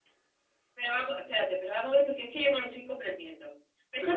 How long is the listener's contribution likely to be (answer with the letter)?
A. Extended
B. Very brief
B